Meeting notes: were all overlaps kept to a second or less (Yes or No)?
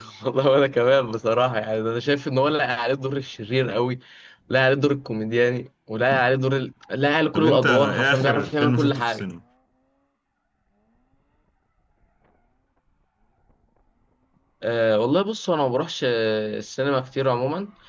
No